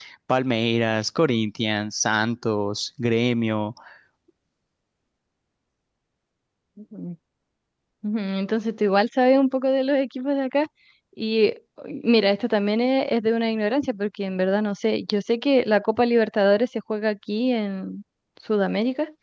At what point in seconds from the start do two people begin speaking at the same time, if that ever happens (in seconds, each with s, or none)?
none